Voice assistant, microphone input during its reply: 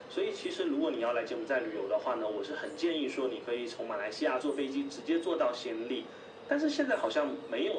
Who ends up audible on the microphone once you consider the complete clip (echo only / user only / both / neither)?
echo only